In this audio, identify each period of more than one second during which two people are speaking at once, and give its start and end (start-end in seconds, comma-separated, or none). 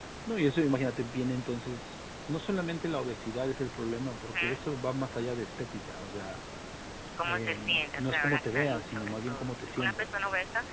7.2-10.1